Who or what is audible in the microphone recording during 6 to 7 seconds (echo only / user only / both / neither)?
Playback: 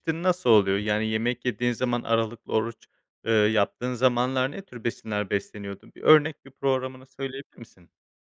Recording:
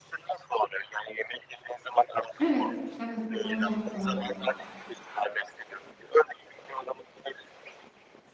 echo only